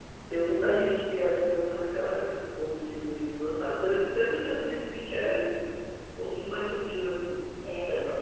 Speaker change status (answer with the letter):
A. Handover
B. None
A